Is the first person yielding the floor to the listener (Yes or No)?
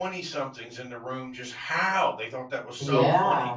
No